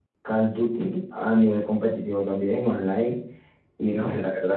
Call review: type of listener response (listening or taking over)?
listening